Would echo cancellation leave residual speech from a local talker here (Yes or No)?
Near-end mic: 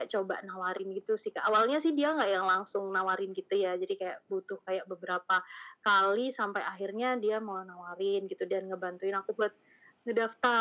No